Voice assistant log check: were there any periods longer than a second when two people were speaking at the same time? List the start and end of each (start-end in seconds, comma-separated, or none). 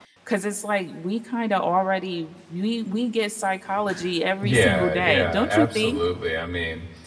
4.4-6.0